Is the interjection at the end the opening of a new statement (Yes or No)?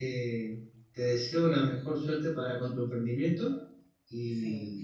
Yes